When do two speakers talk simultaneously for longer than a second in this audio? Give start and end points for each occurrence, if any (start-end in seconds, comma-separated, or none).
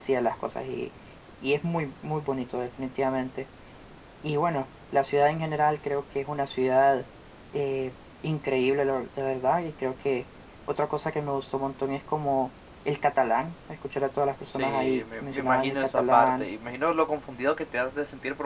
14.5-16.5